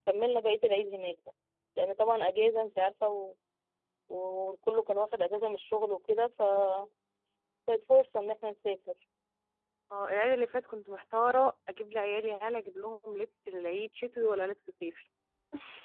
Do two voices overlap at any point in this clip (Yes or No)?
No